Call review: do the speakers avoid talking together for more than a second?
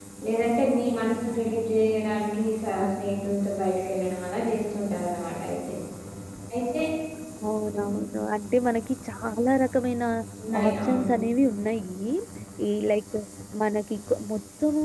Yes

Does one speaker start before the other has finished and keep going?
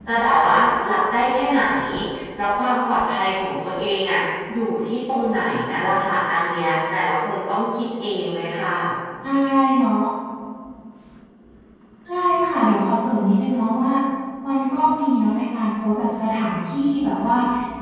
No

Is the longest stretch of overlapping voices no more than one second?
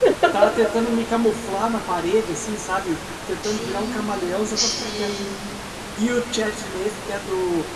No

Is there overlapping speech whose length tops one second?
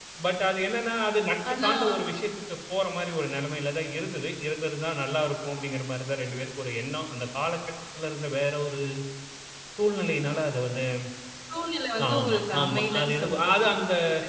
Yes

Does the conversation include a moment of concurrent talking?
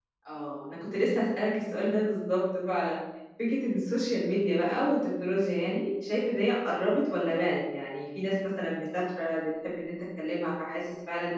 No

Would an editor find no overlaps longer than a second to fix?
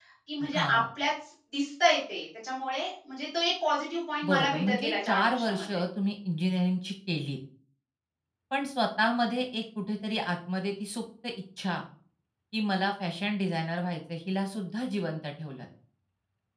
No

